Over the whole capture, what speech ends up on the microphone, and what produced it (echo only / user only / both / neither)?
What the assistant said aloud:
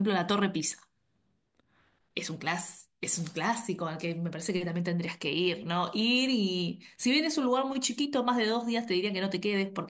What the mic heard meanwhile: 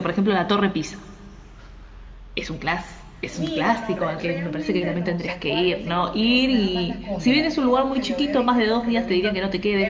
both